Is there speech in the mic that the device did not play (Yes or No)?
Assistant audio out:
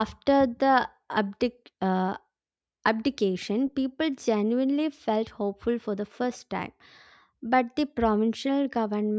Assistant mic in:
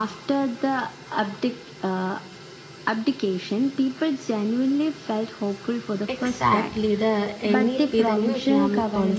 Yes